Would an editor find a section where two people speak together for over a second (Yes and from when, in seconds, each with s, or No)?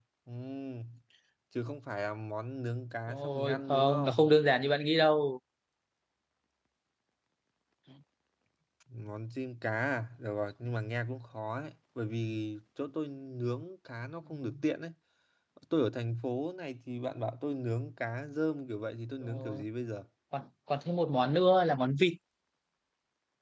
Yes, from 3.1 s